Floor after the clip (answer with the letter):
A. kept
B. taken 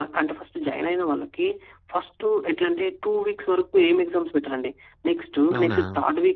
A